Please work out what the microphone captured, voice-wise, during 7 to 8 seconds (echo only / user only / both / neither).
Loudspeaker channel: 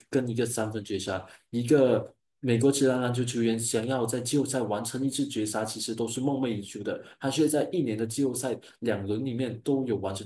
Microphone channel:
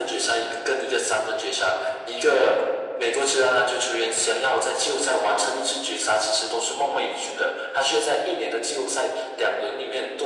echo only